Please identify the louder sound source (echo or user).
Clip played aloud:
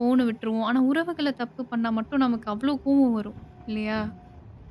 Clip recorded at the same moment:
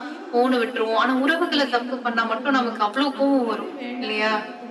echo